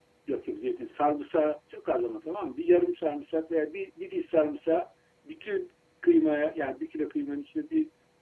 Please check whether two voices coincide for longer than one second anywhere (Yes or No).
No